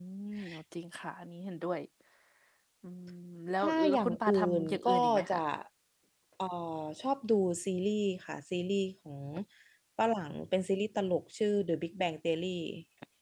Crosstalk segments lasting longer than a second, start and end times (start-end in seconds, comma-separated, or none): 3.6-5.4